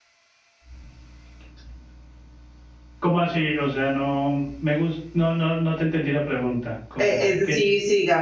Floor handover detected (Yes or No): Yes